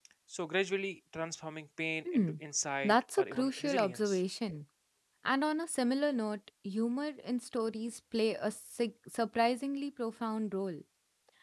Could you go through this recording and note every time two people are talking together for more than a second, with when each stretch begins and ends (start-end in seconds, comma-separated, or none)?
2.8-4.2